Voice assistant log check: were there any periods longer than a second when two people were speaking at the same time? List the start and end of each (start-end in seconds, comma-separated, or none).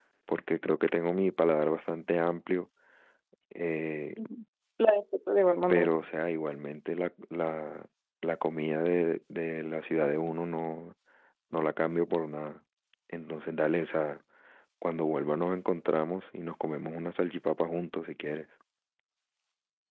none